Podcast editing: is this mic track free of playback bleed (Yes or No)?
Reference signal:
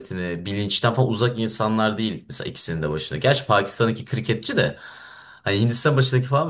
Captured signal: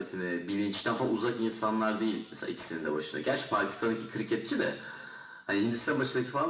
No